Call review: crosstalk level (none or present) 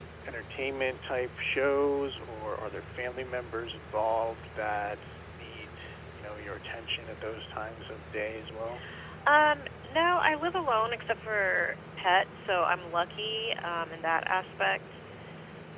none